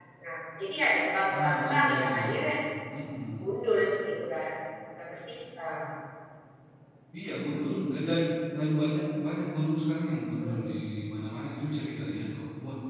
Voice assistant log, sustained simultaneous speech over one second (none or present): present